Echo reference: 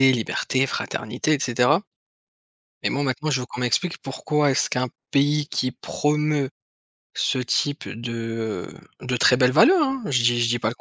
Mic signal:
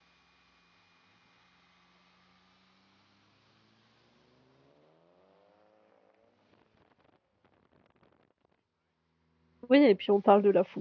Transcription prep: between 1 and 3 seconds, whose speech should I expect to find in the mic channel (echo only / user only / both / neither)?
neither